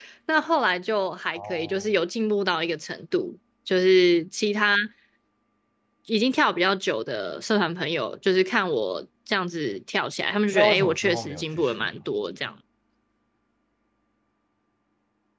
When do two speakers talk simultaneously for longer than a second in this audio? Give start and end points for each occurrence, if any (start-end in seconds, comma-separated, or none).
10.5-11.9